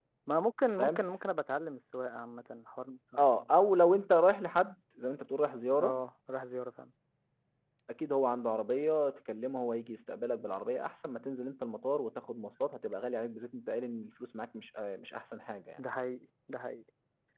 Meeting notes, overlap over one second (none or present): none